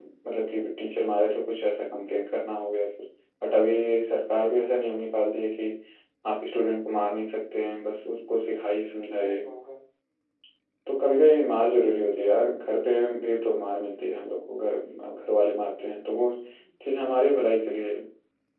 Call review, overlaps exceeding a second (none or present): none